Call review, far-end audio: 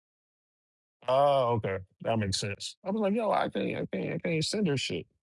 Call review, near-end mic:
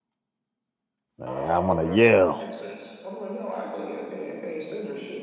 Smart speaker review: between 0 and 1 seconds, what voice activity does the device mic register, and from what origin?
neither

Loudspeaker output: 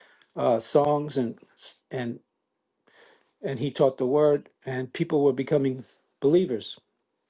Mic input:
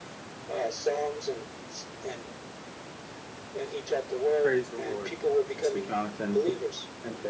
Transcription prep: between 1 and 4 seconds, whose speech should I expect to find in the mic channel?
echo only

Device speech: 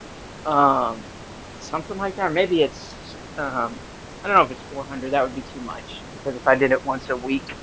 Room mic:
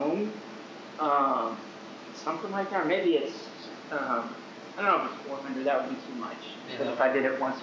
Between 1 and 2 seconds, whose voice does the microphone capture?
echo only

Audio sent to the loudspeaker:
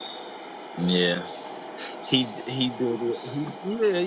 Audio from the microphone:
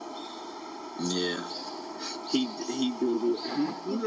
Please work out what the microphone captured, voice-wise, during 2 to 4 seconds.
both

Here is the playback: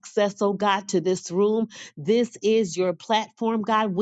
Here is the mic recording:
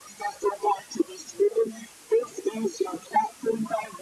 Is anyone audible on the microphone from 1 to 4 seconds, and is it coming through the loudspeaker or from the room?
echo only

